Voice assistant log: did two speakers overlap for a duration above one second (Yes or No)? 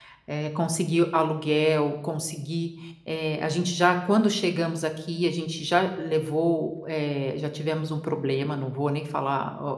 No